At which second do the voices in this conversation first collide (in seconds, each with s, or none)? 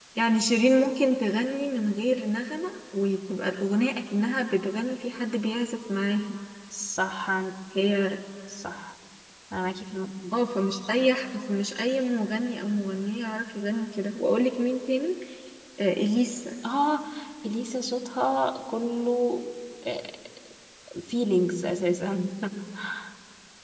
none